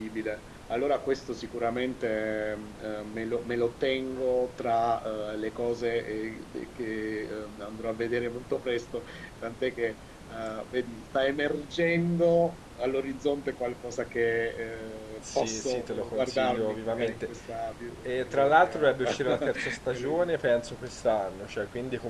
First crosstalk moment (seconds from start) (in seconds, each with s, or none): 15.3 s